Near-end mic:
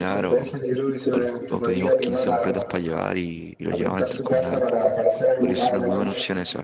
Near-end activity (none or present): present